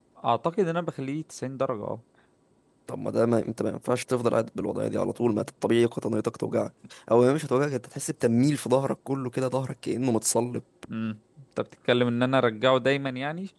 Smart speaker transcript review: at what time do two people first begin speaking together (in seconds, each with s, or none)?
none